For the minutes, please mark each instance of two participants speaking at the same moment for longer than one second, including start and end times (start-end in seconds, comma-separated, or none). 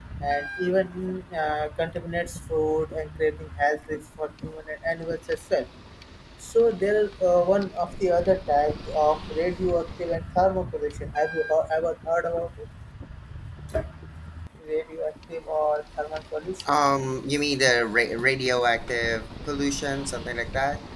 none